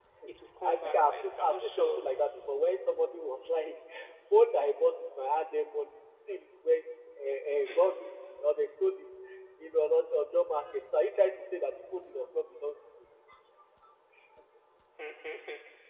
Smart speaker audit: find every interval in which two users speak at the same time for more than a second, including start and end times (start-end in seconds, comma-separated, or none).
0.6-2.0